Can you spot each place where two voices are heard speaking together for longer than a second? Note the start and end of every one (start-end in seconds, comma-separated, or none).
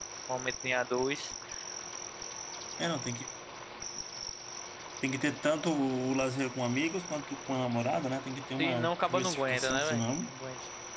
8.6-10.3